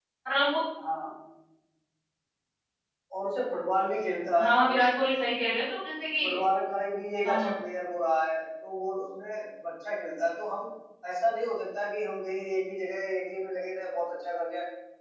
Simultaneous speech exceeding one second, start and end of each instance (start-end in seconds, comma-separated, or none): none